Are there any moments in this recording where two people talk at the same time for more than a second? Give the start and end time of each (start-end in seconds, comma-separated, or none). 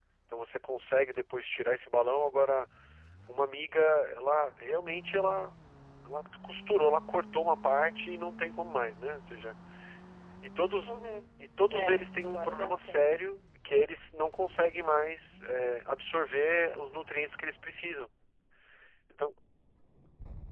11.7-13.0